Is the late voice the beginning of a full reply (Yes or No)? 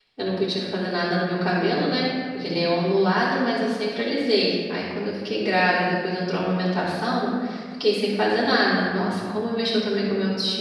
Yes